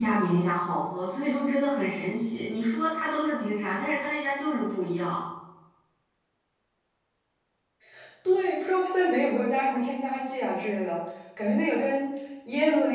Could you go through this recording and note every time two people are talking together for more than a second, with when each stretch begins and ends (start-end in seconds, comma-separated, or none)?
none